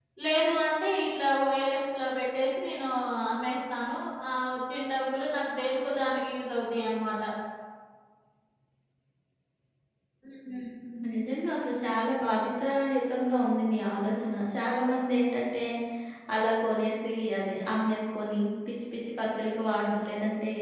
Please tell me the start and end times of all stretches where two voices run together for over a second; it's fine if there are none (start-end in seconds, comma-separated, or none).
none